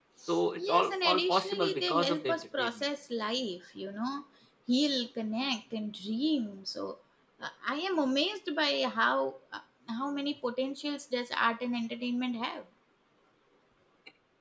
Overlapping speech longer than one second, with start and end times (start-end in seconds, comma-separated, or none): 0.6-2.8